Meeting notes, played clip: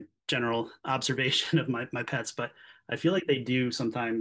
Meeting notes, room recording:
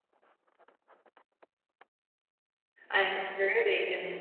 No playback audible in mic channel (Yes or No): Yes